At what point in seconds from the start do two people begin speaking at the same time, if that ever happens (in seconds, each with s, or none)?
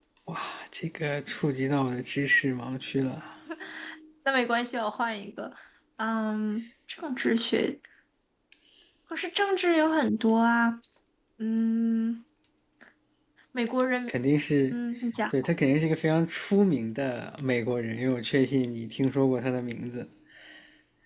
none